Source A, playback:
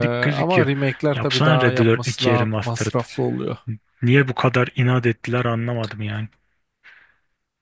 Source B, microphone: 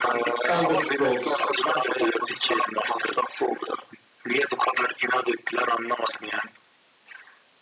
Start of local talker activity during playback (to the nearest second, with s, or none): 0 s